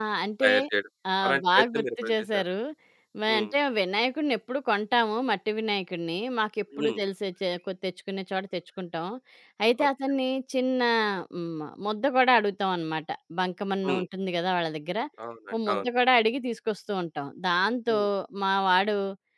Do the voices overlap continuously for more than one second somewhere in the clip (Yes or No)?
Yes